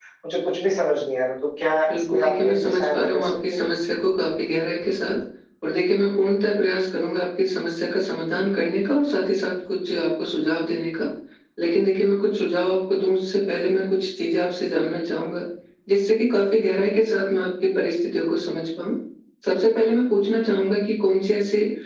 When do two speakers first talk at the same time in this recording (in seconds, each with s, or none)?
1.9 s